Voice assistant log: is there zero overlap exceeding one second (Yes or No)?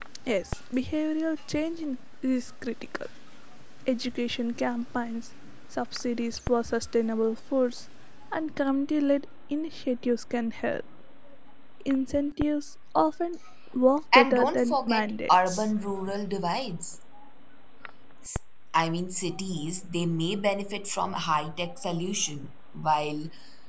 No